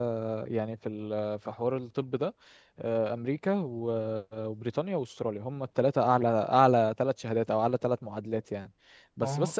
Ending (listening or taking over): listening